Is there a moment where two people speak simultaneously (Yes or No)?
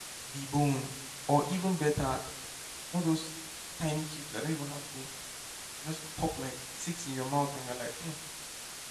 No